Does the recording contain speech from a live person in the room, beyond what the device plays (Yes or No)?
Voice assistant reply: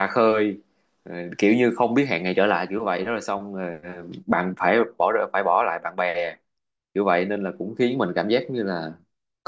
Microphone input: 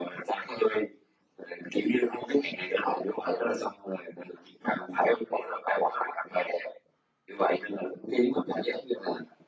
No